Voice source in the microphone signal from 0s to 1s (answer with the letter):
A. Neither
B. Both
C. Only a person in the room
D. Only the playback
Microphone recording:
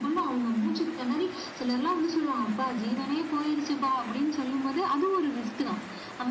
D